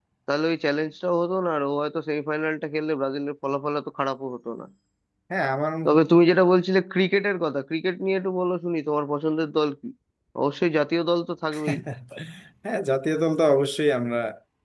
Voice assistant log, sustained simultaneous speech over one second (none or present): none